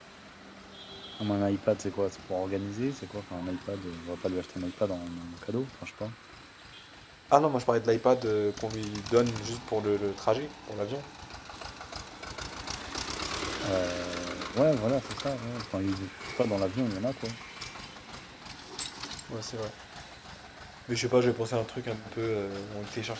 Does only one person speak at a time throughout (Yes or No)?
Yes